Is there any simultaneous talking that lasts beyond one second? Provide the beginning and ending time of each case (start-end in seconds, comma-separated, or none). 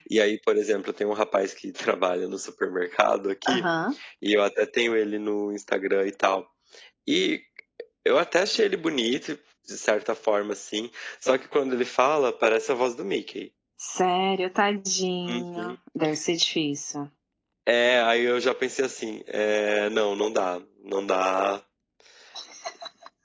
none